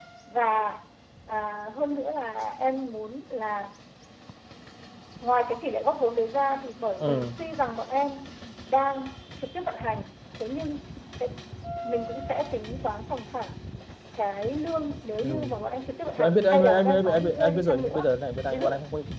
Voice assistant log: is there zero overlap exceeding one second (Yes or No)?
No